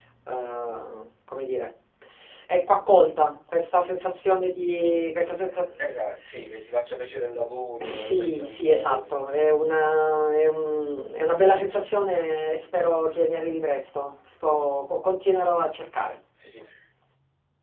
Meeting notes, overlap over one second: present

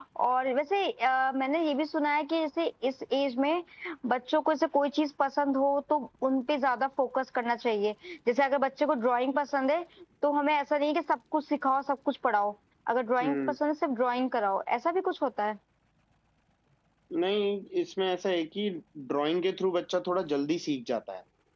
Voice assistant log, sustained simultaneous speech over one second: none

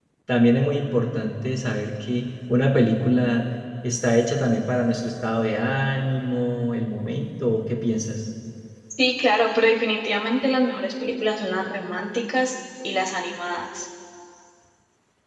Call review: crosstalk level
none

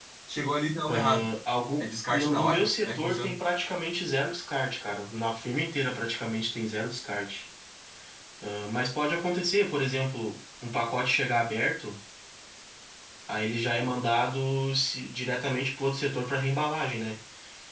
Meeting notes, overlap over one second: present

